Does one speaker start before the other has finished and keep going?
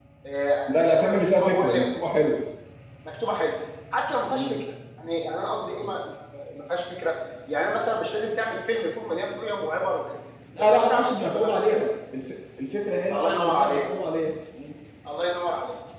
Yes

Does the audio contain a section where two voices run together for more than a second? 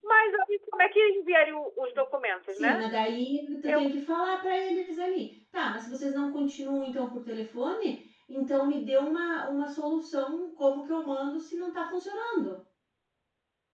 No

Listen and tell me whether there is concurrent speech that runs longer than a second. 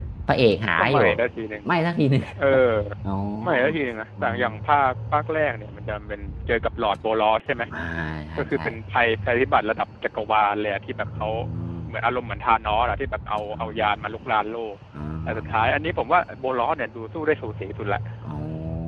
No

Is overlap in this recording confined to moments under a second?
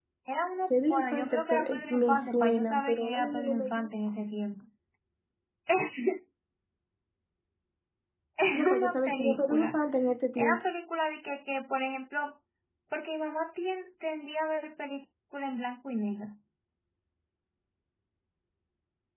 No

